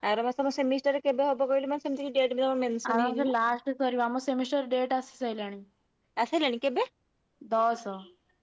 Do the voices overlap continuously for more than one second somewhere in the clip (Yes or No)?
No